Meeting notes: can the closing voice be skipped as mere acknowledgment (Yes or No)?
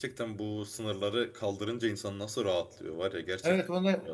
No